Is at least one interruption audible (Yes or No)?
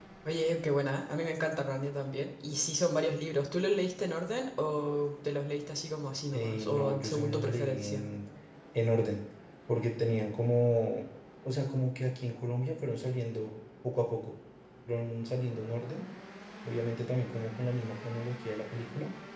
Yes